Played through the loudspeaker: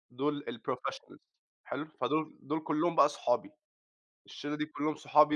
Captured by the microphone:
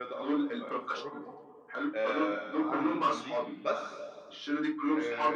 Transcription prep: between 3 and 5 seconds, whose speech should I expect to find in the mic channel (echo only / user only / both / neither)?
both